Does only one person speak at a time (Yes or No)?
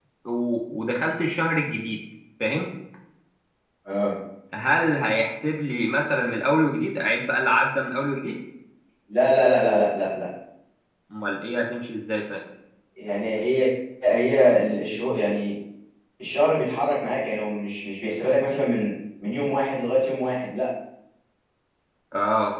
Yes